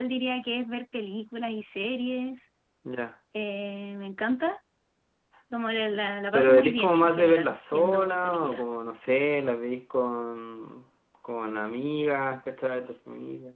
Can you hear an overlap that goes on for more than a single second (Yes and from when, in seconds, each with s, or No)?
Yes, from 6.3 s